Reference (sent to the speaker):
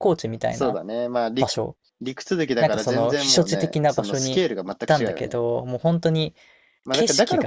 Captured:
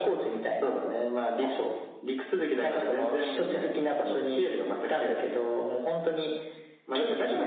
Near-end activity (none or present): none